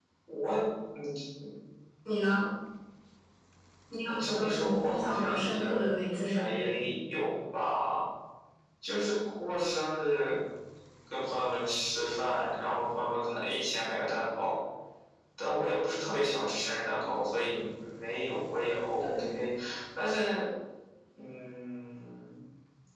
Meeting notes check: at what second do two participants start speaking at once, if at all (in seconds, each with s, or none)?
4.1 s